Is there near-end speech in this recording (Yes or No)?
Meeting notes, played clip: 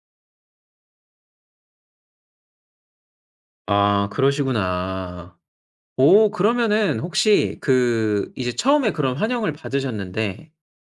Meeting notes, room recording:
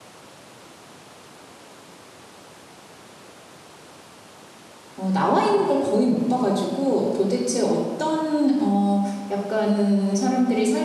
Yes